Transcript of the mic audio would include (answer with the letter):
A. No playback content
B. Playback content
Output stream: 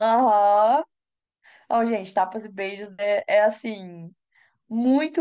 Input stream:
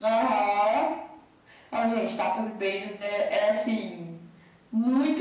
B